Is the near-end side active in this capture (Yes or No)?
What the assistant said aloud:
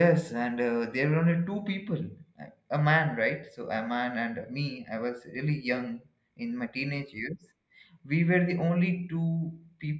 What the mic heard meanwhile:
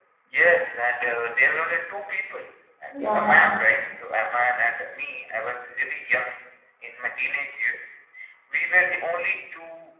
Yes